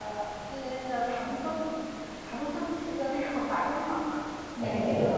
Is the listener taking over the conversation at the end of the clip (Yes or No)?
Yes